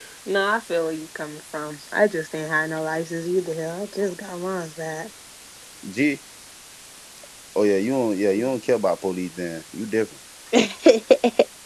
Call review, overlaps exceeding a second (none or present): none